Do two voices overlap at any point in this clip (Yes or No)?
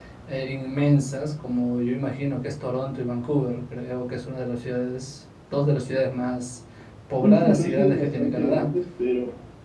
Yes